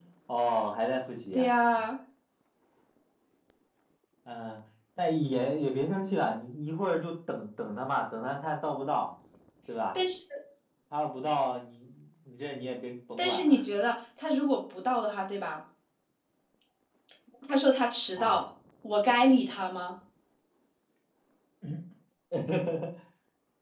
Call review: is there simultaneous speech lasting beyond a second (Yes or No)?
No